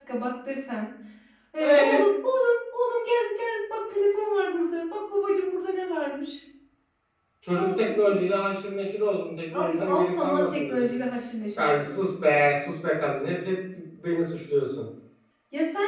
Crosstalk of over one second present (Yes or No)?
Yes